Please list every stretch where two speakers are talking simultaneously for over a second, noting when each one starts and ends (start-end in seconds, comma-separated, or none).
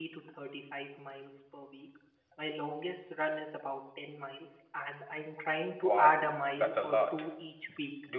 5.8-7.3